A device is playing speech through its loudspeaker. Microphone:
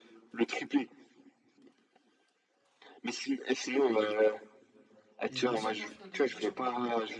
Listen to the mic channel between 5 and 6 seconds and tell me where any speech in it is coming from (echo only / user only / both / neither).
both